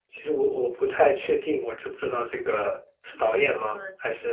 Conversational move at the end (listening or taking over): taking over